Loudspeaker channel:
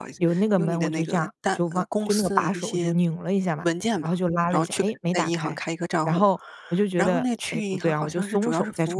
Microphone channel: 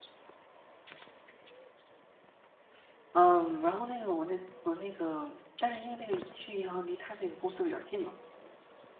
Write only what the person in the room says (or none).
嗯，然后那个我那我那个但是因为那个去银行离他那个公司比较近嘛，